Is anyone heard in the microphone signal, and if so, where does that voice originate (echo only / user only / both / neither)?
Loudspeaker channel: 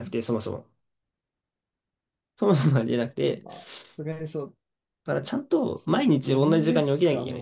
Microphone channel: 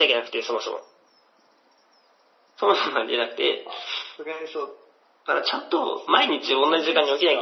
echo only